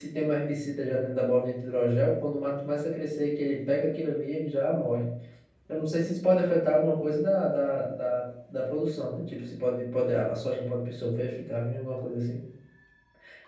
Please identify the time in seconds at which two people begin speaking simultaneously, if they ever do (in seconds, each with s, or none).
none